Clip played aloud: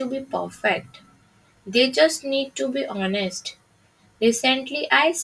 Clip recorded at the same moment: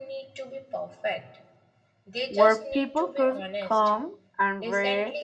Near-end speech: present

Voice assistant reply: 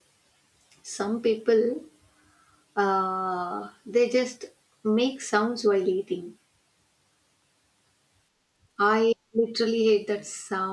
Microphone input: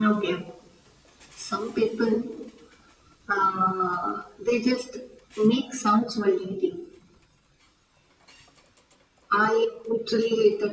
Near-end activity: none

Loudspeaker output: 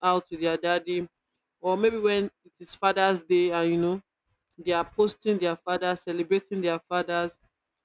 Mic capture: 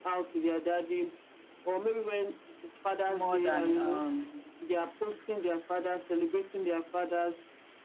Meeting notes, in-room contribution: present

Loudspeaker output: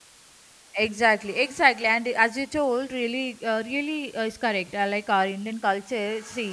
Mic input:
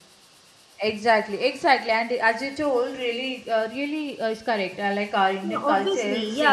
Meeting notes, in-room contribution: present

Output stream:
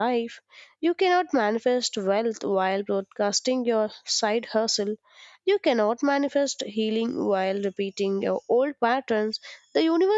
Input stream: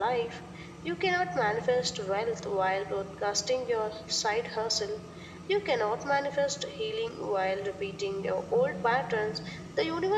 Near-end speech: none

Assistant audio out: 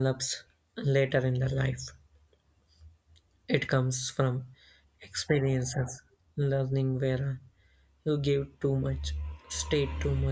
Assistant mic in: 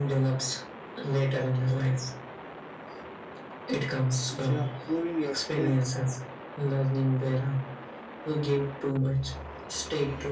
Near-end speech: present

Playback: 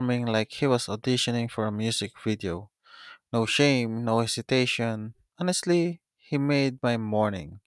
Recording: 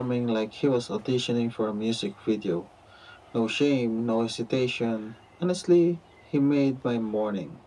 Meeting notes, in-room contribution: none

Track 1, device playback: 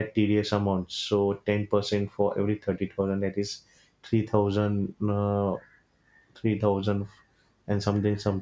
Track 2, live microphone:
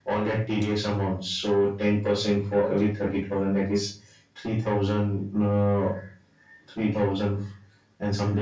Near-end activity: none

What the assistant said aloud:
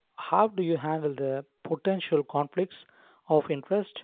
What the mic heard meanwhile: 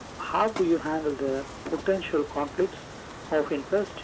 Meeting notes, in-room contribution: none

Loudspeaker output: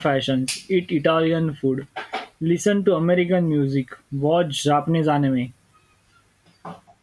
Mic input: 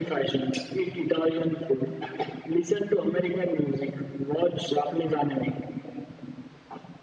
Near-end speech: none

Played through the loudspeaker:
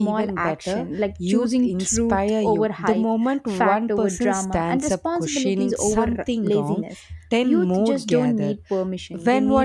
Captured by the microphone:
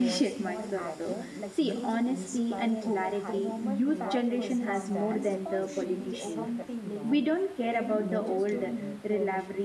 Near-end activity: present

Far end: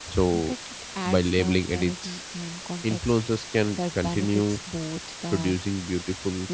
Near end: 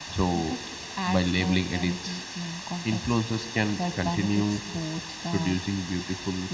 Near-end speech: none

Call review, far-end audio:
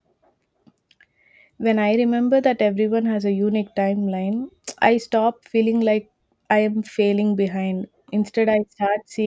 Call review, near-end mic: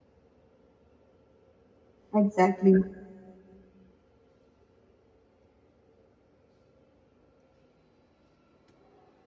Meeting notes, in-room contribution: present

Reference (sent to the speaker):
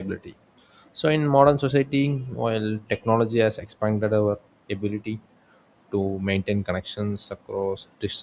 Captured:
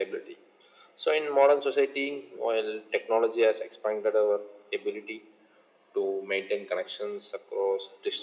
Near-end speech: none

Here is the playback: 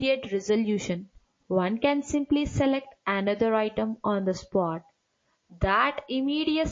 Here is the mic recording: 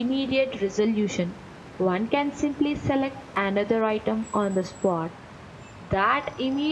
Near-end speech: none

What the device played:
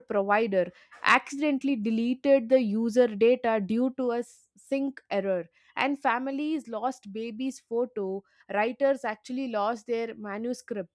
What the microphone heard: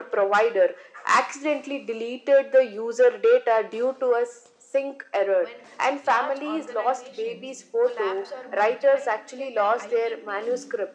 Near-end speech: present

